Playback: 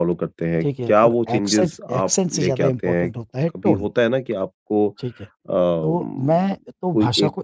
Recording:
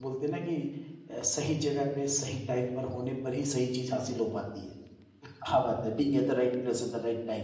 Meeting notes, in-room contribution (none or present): present